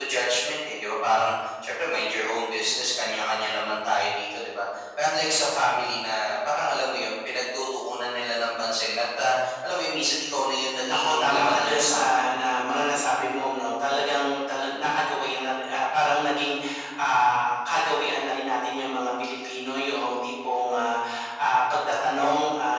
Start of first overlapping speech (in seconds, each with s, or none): 10.8 s